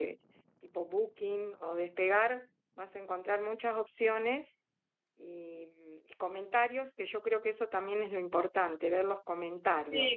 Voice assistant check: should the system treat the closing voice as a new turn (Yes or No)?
Yes